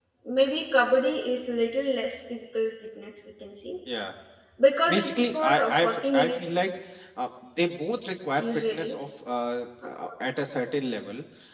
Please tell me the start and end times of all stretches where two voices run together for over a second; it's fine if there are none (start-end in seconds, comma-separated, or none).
5.0-6.6